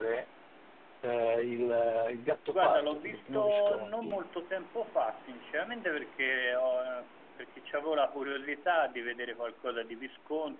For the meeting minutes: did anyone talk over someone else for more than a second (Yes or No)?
Yes